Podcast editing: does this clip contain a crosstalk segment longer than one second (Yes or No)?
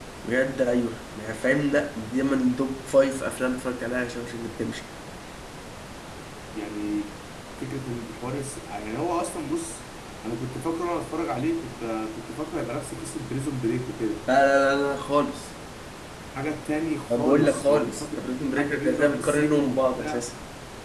Yes